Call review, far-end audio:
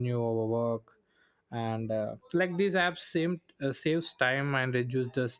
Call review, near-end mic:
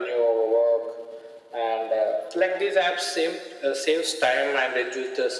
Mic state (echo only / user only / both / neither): echo only